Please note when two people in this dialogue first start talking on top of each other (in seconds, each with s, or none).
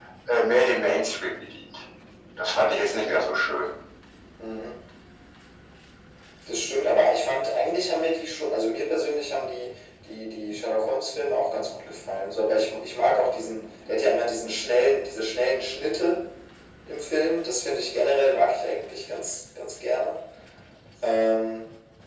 none